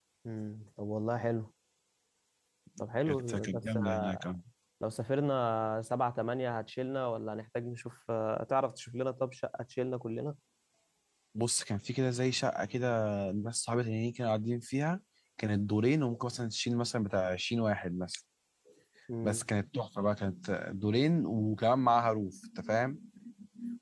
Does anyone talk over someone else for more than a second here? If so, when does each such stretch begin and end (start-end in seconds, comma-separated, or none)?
3.0-4.3